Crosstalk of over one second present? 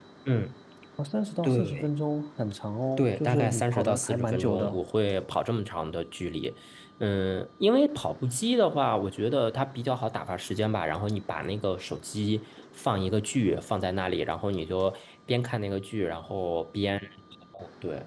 Yes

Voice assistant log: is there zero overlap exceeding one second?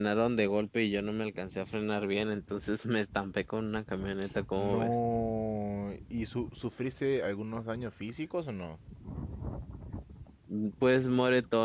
Yes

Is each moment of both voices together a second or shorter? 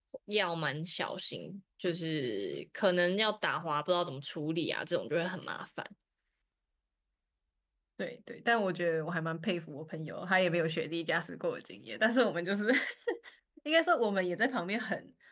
Yes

